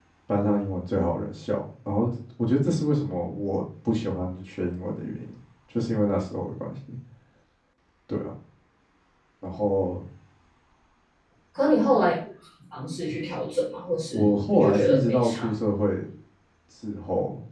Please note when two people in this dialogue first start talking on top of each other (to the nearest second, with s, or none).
14 s